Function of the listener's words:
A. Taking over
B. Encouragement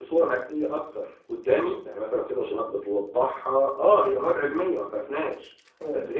B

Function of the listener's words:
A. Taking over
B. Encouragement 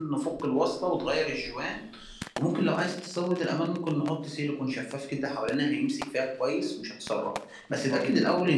B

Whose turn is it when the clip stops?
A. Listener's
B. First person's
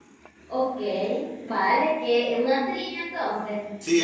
A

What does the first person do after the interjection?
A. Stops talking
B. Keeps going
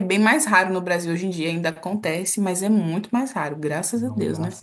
A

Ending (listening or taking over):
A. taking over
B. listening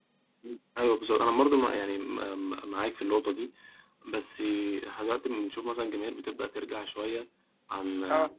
B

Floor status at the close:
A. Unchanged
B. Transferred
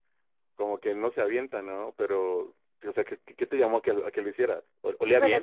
B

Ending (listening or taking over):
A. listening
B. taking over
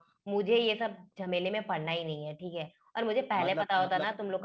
A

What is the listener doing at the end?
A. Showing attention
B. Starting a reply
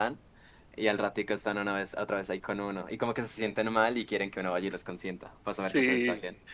B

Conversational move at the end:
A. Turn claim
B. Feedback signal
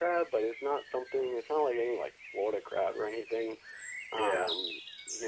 B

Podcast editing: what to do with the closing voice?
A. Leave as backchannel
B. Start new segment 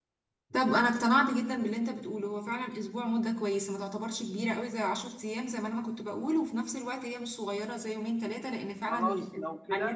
B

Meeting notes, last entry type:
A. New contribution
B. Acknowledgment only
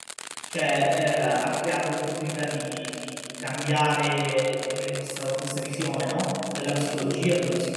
B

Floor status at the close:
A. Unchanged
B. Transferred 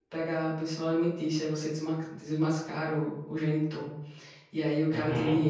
A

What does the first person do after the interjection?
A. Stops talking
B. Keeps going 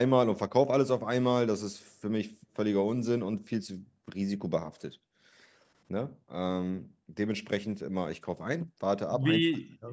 A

